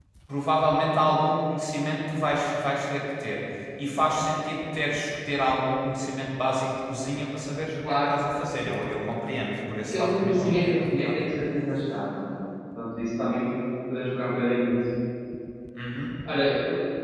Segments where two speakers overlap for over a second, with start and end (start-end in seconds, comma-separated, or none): 9.9-11.1